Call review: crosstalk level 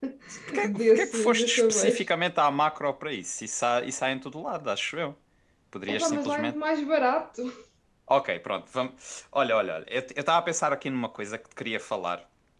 present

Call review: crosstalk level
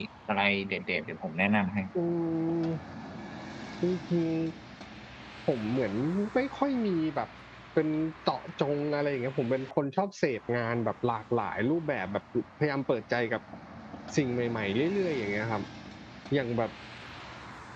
none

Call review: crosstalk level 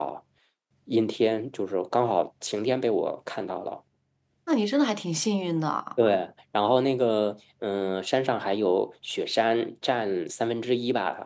none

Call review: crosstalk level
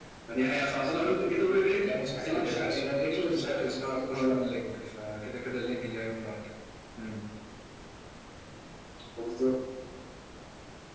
present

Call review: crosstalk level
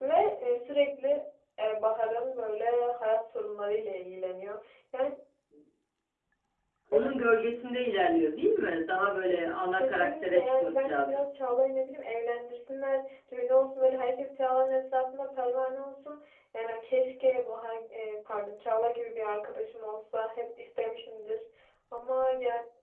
present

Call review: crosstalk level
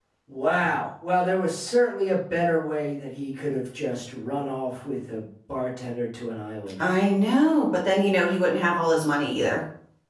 none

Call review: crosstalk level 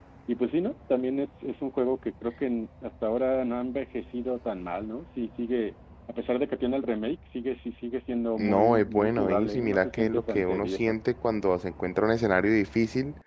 present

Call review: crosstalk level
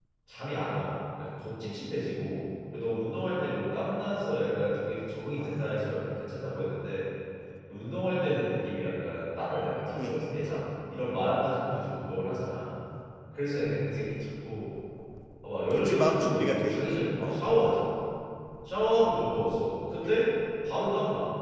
present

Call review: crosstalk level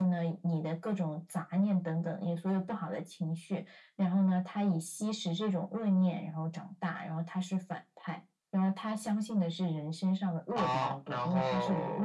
present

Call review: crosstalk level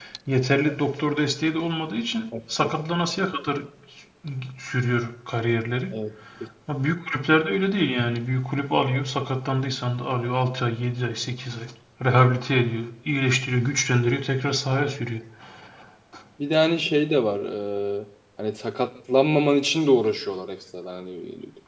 none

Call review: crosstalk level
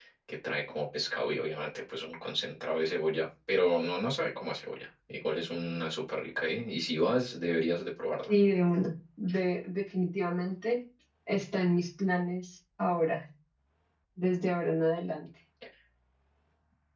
none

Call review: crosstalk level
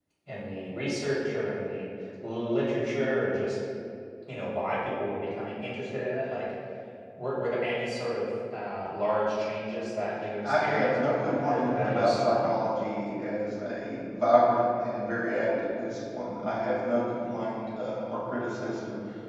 present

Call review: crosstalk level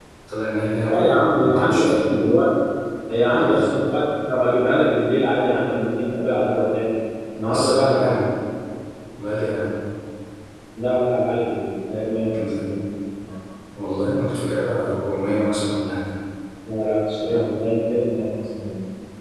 present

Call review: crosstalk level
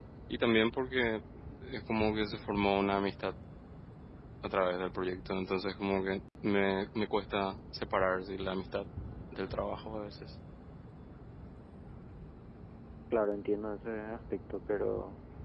none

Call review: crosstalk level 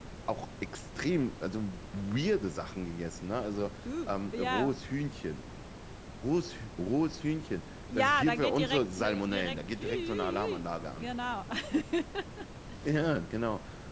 present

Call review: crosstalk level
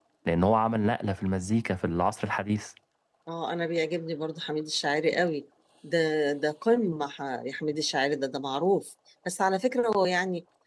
none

